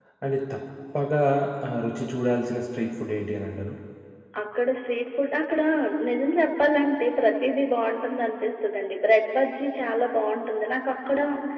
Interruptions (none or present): none